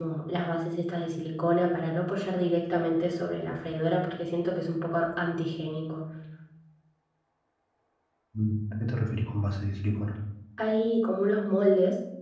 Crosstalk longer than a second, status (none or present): none